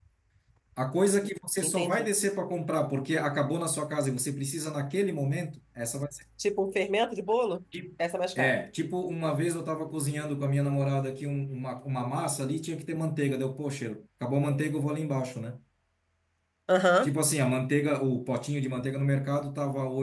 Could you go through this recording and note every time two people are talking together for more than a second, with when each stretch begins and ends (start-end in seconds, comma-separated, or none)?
none